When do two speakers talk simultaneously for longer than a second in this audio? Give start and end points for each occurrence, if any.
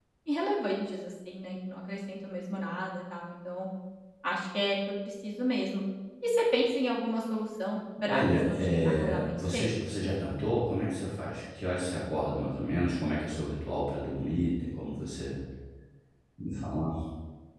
8.1-9.8

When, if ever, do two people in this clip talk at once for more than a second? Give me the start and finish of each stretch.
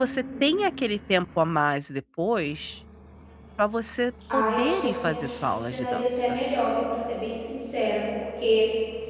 4.3-6.4

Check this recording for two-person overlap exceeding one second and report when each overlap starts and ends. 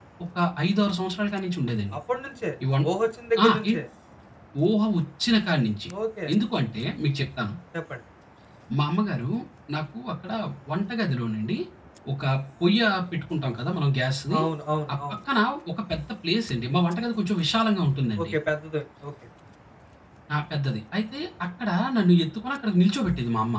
none

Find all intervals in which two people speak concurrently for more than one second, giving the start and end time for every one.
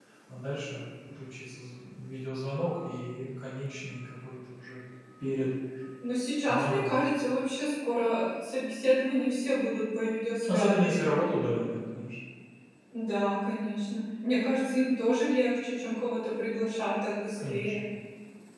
none

